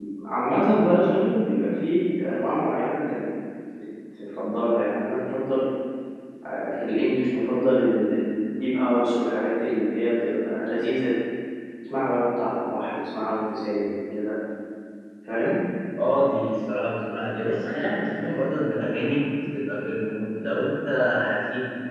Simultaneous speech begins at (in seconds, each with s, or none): none